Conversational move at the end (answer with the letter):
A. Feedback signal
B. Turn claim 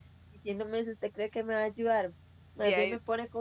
A